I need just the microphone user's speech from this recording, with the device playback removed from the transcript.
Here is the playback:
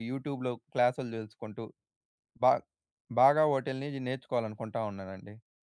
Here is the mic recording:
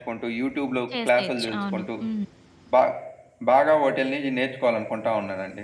చేసేయొచ్చు. అవును. హ్మ్.

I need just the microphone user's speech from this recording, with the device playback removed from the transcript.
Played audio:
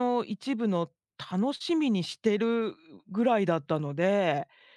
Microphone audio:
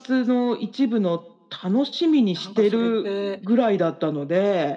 なんかそれって

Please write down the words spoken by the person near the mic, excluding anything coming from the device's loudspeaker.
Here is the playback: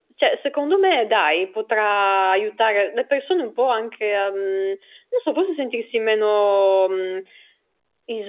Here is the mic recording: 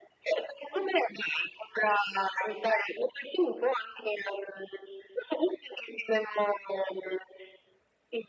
none

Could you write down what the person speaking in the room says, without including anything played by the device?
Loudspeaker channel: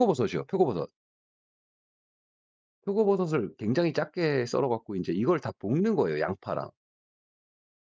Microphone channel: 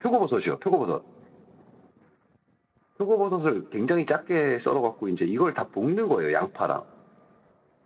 none

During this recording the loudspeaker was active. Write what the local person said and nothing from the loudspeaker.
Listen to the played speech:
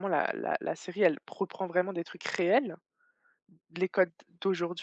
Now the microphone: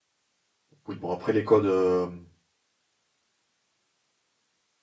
Oui, bon après les codes, hem,

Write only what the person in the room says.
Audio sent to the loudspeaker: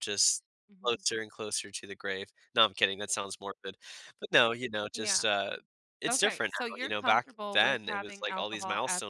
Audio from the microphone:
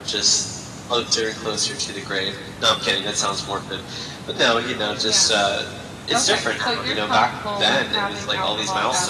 none

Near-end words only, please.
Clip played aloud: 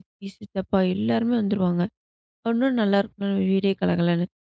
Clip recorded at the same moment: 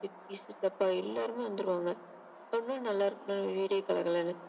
none

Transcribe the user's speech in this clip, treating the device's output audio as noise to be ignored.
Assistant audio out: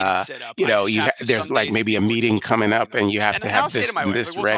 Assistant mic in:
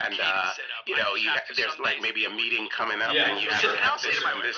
Yeah. For sure. For sure.

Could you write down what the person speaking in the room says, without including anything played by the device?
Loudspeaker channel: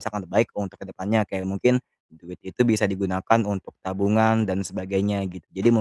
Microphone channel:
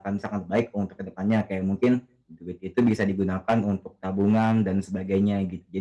none

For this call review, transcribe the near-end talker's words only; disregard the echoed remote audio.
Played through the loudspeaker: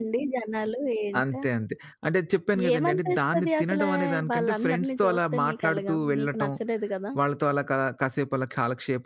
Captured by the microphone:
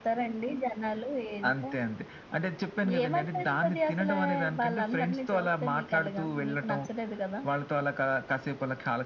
none

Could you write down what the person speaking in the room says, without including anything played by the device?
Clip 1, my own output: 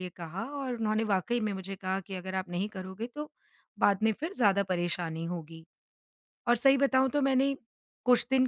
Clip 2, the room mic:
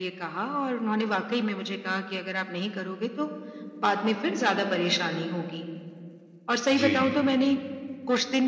जी, जी।

